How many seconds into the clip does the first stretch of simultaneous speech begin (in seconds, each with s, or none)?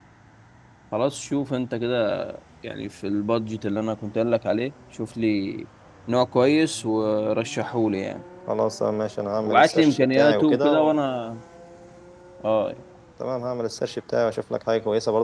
9.5 s